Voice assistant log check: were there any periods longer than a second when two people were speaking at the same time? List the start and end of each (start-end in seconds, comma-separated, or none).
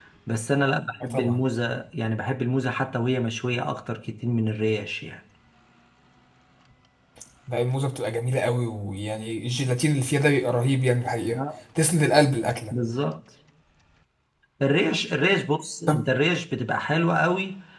none